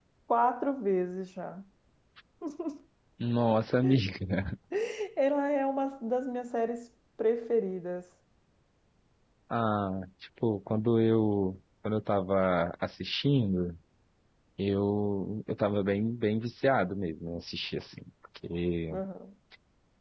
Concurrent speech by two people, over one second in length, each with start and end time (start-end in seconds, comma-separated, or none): none